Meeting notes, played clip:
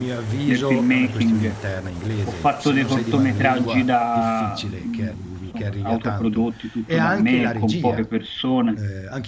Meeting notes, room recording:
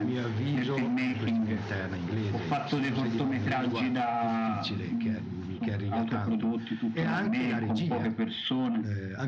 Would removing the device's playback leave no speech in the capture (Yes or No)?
Yes